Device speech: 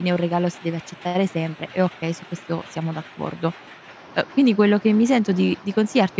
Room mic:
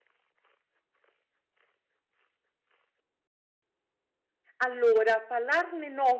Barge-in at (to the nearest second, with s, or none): 5 s